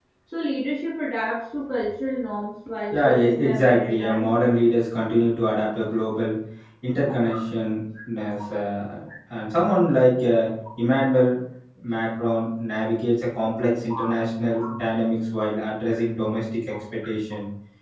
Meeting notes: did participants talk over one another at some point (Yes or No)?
Yes